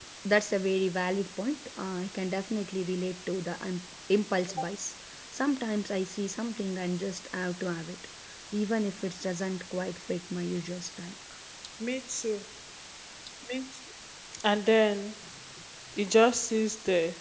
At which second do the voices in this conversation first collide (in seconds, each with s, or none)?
none